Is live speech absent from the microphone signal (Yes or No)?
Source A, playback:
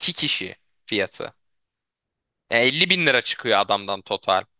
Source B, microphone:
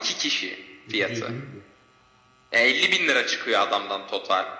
No